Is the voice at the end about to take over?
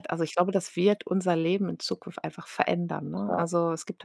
No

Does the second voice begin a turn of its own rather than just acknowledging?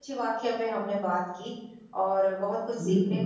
No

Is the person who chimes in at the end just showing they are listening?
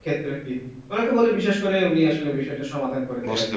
No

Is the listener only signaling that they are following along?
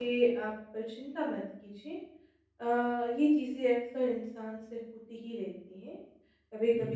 Yes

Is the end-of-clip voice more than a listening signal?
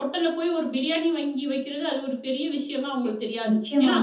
Yes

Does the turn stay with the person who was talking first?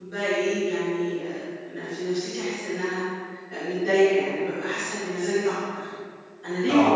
Yes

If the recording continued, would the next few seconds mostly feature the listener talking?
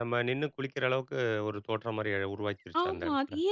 Yes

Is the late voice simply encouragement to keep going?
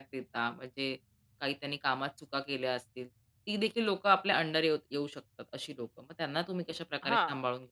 No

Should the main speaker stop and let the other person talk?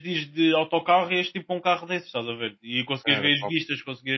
No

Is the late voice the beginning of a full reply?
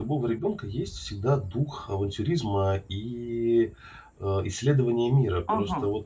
Yes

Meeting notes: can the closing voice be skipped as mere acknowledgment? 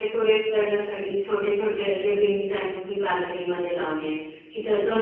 Yes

